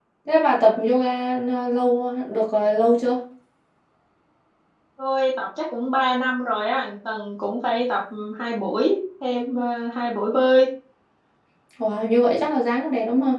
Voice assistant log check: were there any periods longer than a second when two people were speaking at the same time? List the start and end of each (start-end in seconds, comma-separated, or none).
none